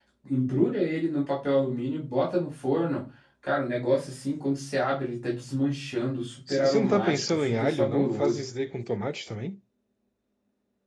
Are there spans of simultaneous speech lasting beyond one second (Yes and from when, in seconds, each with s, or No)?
Yes, from 6.5 s